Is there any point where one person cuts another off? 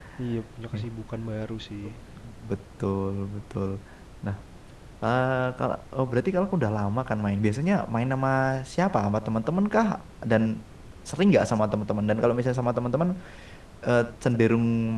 No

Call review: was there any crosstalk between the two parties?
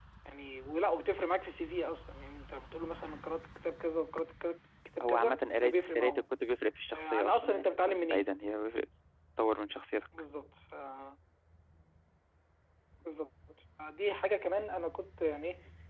Yes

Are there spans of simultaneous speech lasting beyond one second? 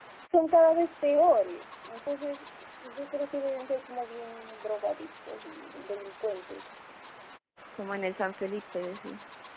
No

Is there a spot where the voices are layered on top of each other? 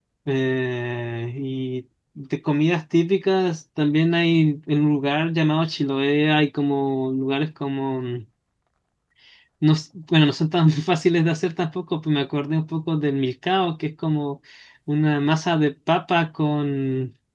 No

